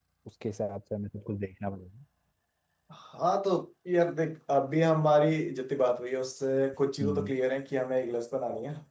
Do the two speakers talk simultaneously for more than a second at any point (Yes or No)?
No